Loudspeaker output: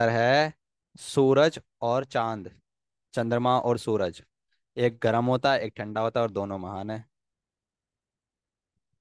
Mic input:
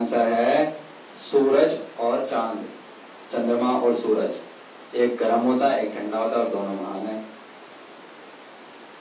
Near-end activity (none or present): none